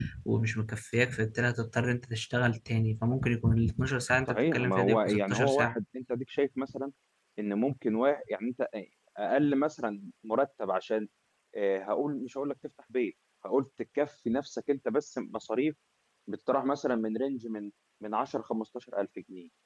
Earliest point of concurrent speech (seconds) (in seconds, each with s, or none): 4.3 s